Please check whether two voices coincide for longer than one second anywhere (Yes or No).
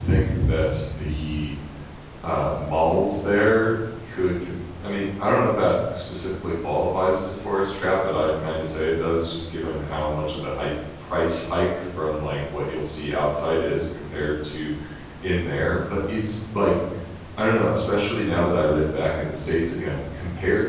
No